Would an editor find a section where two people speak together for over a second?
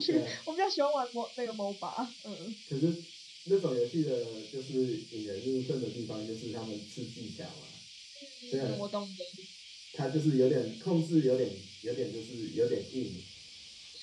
No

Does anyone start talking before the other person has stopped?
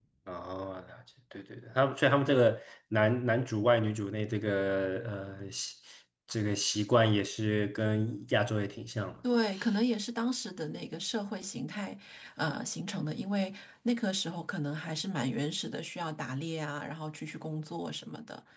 No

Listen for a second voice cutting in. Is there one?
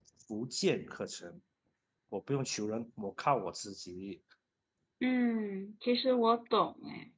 No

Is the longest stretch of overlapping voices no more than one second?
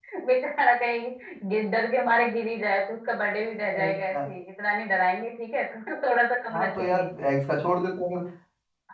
Yes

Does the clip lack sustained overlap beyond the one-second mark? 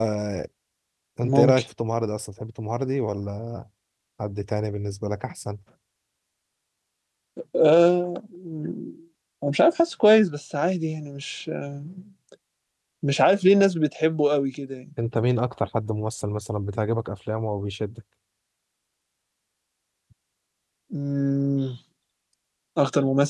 Yes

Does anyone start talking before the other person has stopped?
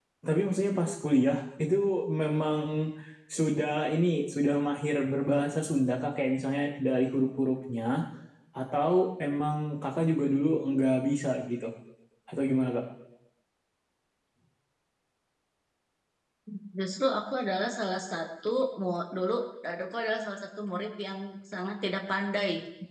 No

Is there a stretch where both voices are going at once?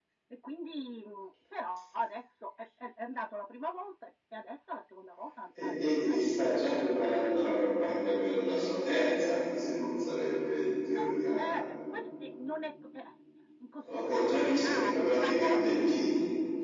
Yes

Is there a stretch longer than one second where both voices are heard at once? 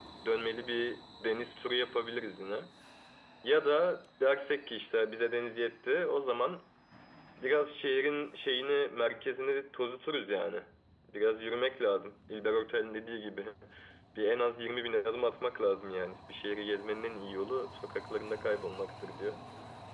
No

